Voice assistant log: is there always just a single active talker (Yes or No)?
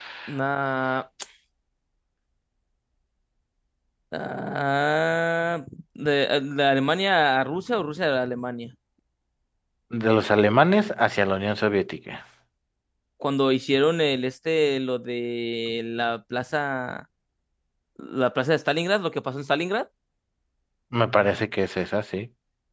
Yes